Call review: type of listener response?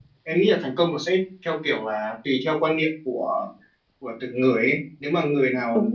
listening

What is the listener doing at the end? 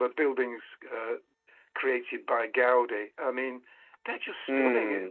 taking over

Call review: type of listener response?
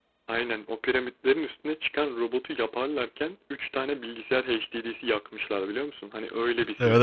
taking over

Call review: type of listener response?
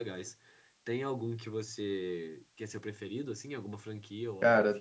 taking over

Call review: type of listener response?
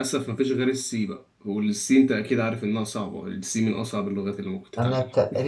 taking over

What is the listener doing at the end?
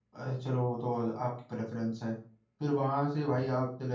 listening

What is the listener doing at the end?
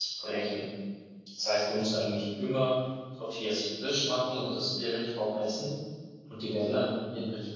listening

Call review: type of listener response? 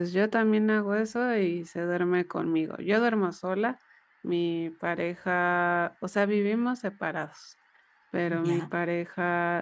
listening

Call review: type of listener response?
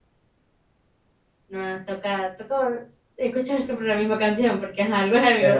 taking over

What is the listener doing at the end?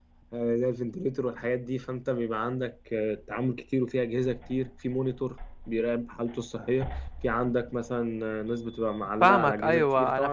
taking over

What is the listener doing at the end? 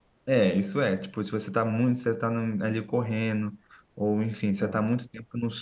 listening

